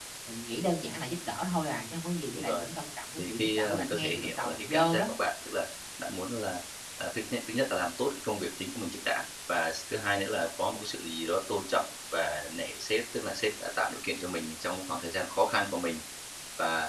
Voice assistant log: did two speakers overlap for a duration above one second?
Yes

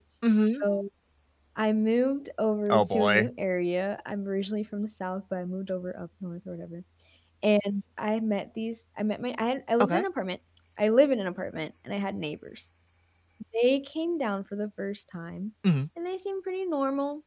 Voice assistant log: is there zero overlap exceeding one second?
Yes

